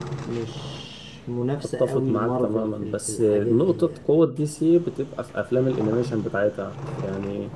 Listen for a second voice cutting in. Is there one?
Yes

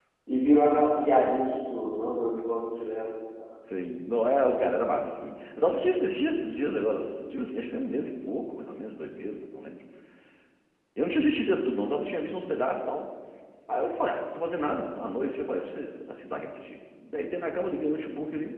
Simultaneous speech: No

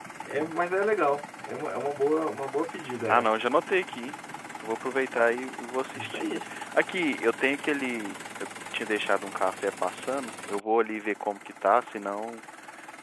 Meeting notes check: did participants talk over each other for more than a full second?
No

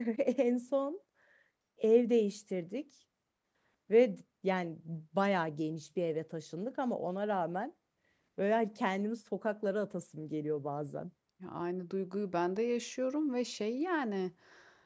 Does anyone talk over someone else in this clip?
No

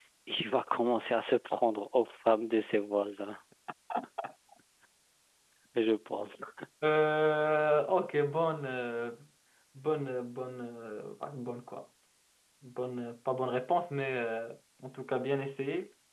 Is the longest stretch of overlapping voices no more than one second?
Yes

